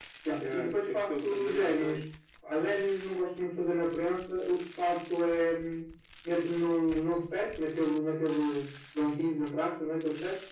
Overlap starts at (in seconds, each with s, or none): 0.5 s